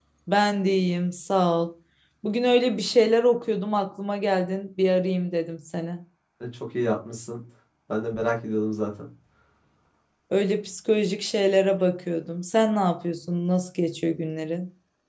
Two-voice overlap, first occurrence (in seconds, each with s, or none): none